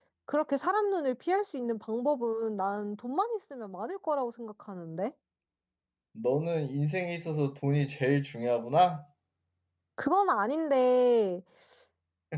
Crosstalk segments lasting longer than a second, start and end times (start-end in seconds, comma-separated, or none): none